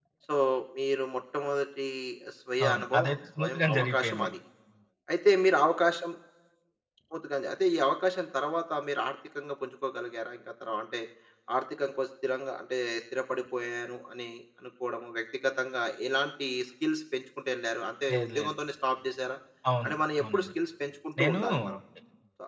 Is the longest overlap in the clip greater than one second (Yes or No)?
Yes